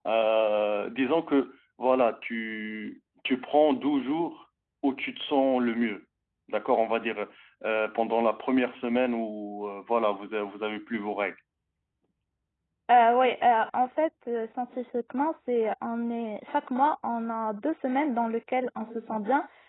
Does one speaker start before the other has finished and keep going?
No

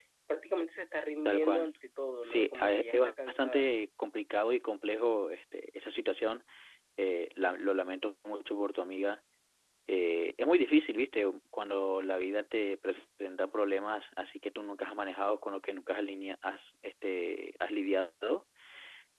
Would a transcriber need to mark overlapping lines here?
Yes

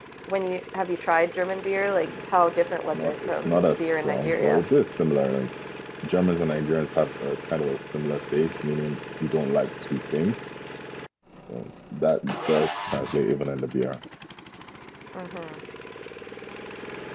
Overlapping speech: Yes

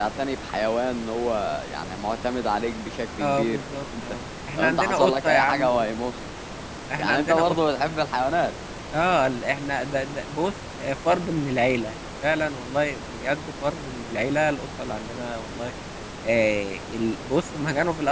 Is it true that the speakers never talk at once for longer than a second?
No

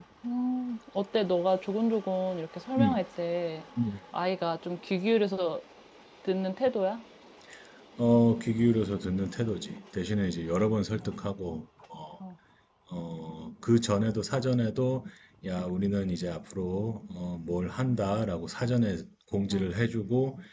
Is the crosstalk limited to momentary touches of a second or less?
Yes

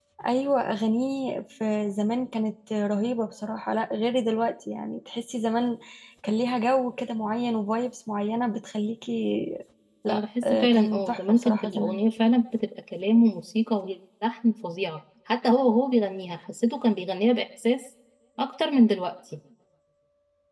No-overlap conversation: No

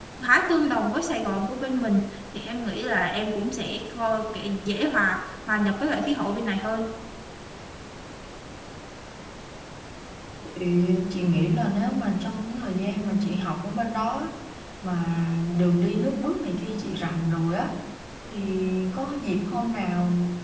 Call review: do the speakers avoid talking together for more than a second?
Yes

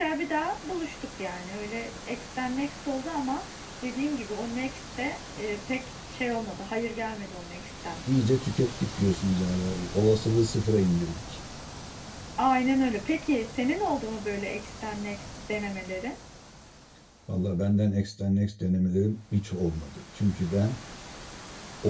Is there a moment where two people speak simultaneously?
No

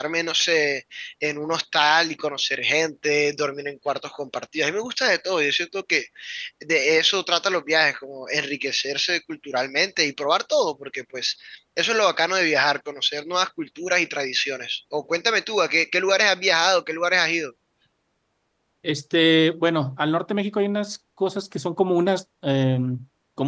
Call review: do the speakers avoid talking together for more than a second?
Yes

